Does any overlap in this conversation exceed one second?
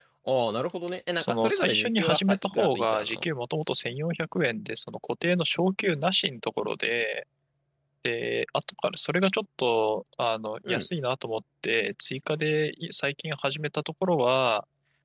Yes, from 1.2 s

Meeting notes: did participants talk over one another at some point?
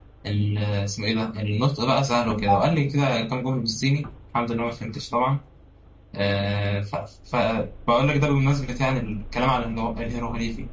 No

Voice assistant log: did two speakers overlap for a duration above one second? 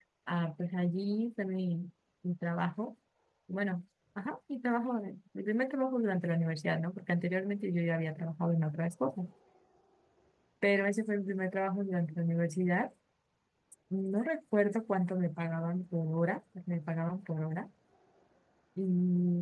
No

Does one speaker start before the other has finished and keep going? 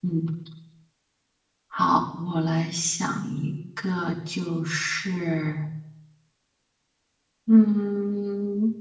No

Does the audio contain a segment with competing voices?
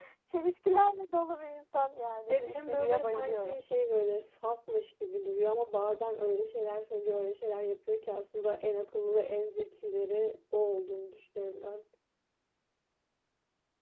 Yes, from 2.3 s

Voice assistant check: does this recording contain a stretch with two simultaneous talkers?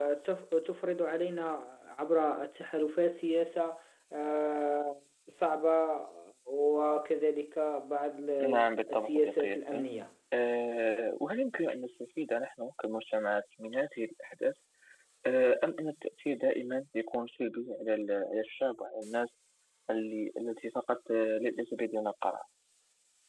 Yes, from 8.4 s

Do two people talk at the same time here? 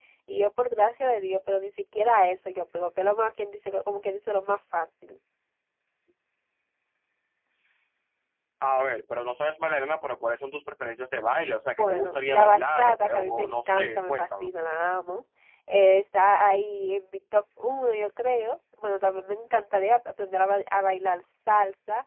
Yes, from 11.8 s

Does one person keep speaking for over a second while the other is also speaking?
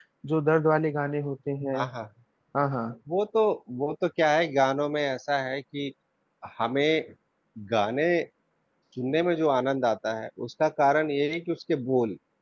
No

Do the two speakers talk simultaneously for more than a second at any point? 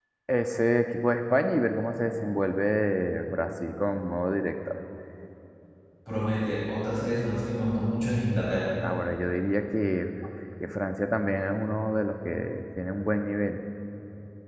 No

